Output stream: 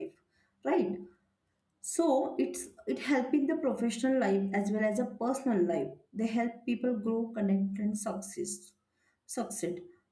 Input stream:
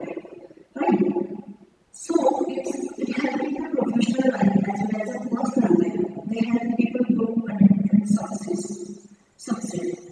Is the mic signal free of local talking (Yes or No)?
Yes